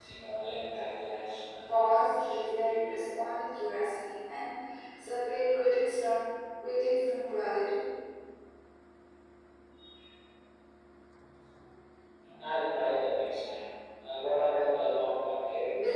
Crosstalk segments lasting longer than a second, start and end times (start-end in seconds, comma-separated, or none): 1.7-3.0